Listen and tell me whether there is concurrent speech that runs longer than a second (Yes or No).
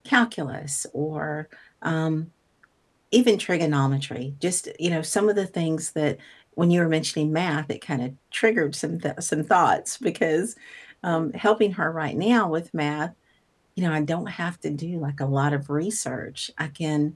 No